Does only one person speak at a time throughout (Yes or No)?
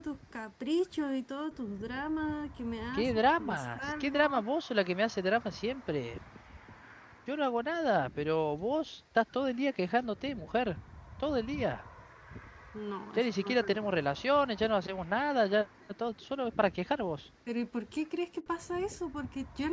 No